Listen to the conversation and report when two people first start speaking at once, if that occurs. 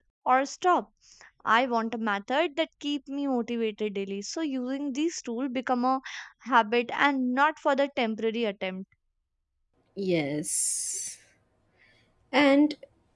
none

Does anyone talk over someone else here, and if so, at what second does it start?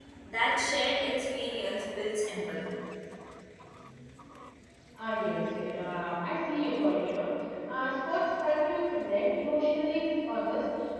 none

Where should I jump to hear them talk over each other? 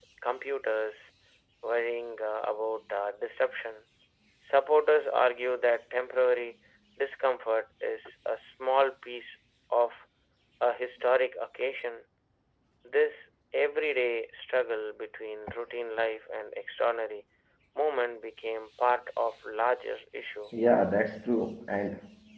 none

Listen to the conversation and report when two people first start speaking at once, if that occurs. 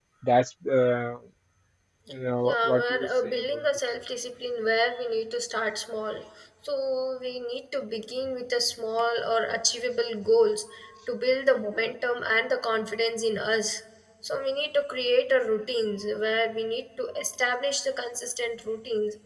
2.4 s

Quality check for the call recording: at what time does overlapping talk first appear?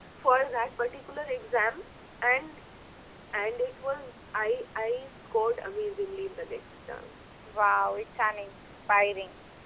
none

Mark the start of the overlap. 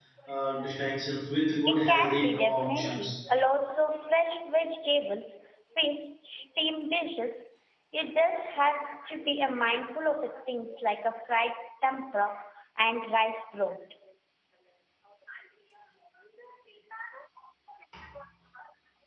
1.7 s

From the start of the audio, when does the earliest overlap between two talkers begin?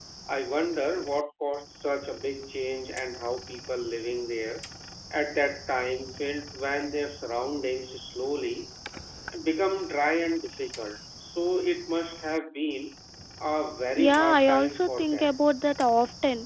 14.0 s

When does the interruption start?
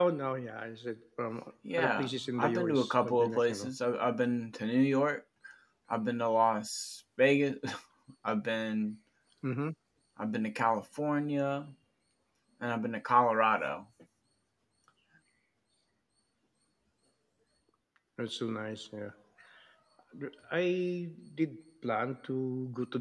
1.6 s

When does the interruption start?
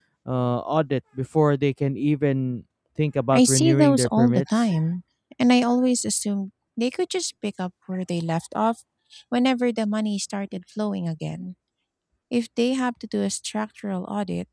3.3 s

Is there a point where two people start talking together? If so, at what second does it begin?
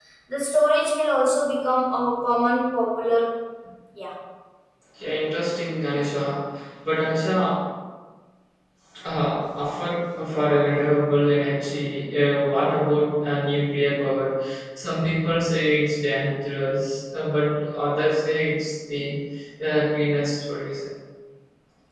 none

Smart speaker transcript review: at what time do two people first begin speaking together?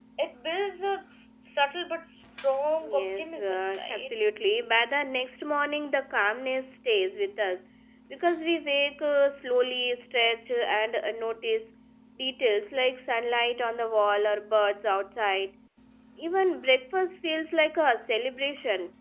2.8 s

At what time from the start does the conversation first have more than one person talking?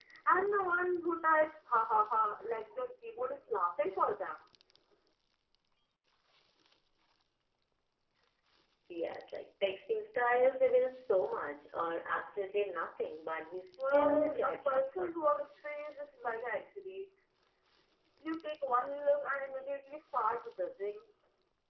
13.8 s

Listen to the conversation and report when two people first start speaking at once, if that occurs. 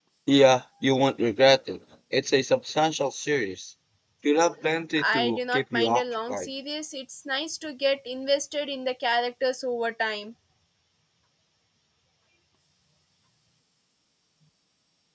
5.1 s

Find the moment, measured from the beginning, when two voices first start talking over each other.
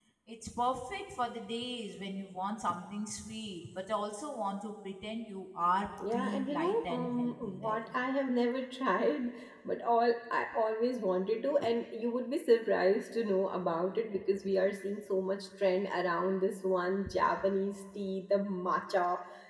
6.0 s

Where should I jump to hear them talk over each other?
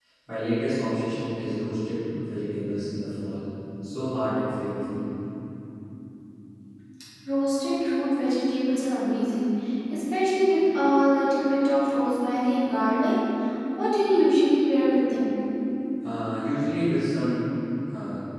none

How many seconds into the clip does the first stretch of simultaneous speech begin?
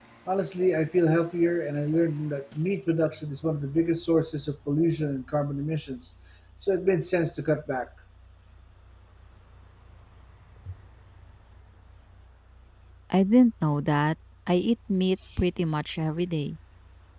none

